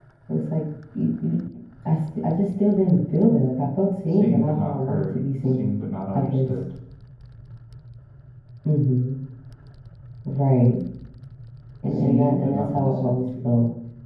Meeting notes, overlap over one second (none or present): present